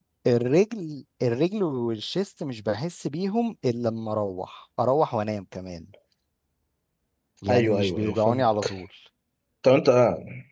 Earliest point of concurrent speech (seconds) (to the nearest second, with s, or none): 7 s